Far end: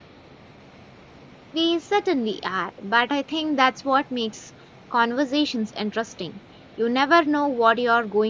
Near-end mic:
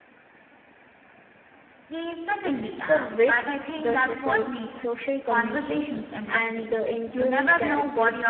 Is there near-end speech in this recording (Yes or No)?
Yes